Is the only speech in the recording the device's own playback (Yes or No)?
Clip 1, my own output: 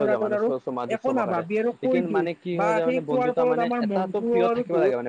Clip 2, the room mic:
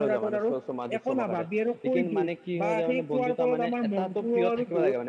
Yes